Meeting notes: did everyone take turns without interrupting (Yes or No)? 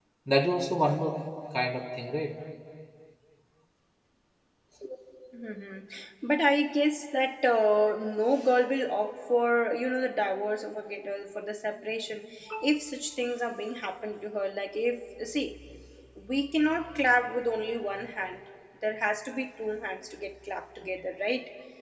Yes